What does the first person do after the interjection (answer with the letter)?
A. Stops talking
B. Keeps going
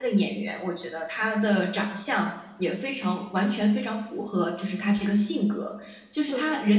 B